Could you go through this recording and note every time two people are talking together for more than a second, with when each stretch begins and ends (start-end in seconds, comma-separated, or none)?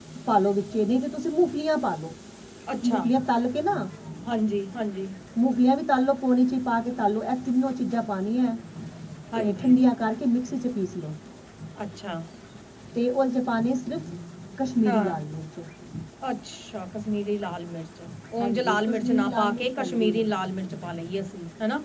18.4-20.2